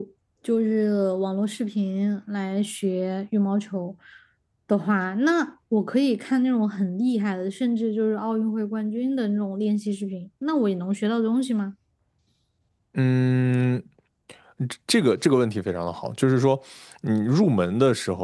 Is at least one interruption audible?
No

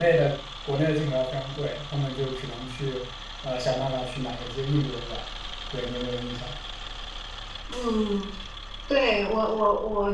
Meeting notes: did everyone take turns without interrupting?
Yes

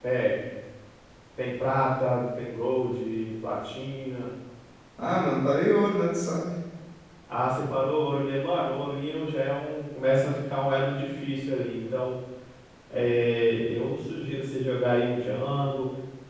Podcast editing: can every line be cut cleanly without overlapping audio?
Yes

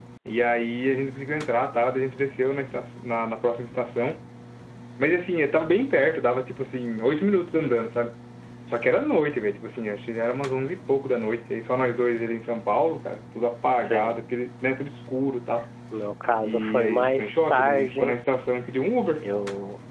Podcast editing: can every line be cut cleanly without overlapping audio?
No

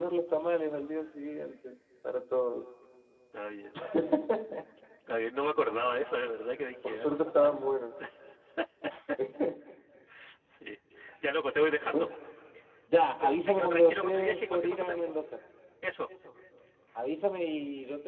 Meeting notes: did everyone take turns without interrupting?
No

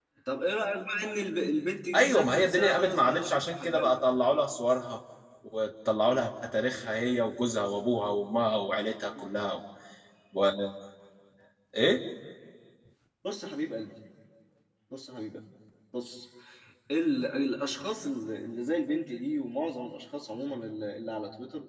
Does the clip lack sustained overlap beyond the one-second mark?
No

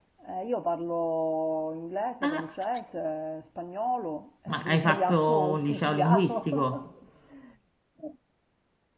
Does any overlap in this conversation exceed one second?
Yes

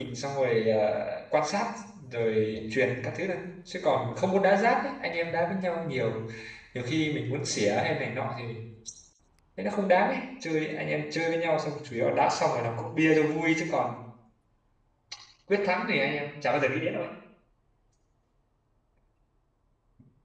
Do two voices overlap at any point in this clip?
No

